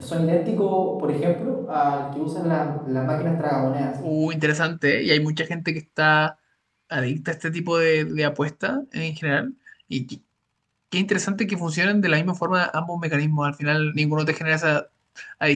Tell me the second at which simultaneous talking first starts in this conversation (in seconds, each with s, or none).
none